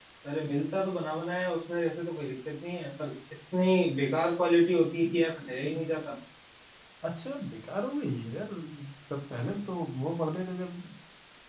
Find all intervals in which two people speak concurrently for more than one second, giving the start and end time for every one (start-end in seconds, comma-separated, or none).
none